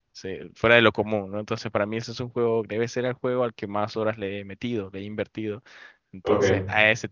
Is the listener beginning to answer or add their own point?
No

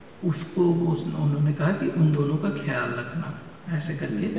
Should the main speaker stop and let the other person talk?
No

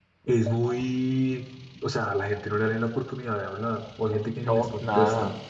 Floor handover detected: Yes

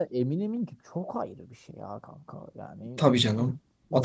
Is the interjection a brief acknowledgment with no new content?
No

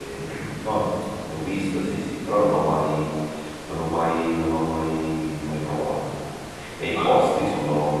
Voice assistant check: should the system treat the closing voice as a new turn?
No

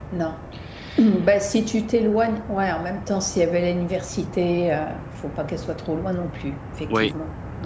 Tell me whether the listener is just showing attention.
No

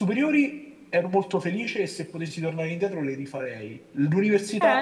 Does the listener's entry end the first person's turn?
Yes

